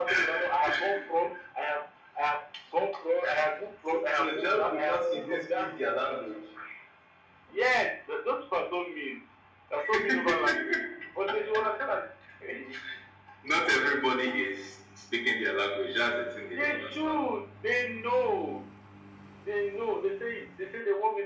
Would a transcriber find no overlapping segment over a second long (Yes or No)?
No